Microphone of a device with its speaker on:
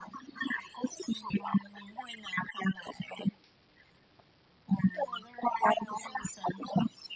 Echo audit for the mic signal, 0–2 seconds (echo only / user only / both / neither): echo only